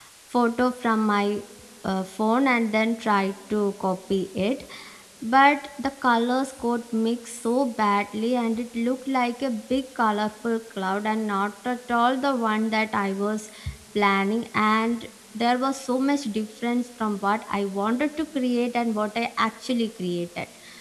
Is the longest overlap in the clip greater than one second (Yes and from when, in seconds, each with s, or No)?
No